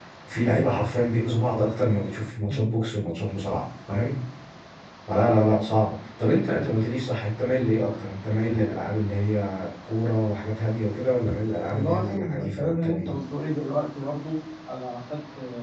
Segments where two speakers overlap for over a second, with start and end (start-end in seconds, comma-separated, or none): 11.7-13.1